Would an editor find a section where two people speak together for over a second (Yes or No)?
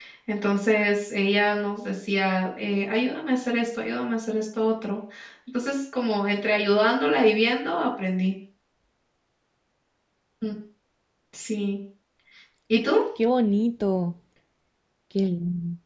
No